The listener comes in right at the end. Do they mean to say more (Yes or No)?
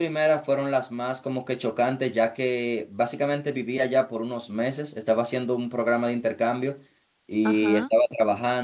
No